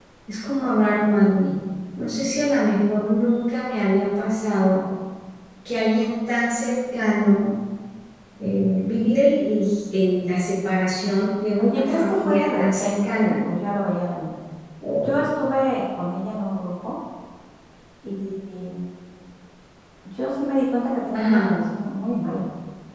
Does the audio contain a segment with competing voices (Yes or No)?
Yes